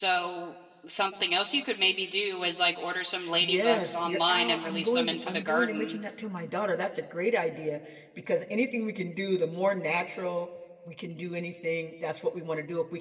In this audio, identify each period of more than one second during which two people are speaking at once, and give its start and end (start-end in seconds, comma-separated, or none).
3.4-6.0